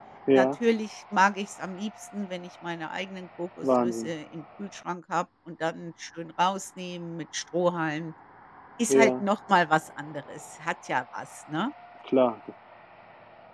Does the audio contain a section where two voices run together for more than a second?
No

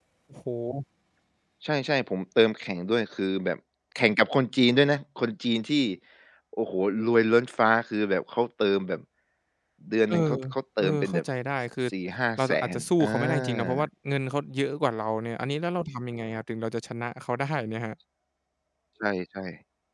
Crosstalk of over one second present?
Yes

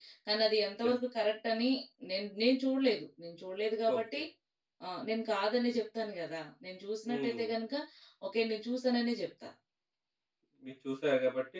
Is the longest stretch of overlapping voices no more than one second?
Yes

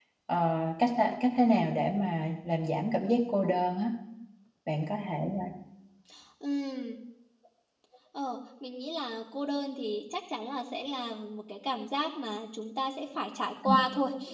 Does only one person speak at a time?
Yes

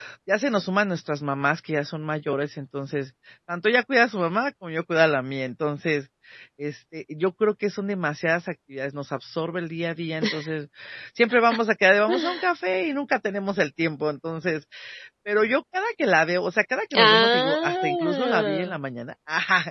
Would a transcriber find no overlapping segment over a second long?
No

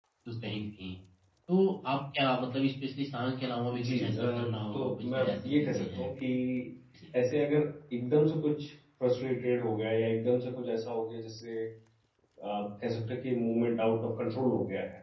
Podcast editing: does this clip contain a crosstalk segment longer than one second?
Yes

